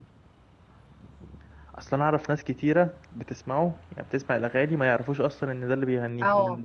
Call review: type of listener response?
taking over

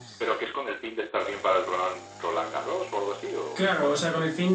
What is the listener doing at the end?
taking over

